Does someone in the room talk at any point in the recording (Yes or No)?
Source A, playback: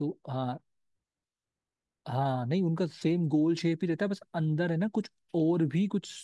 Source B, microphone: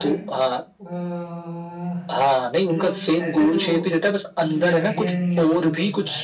Yes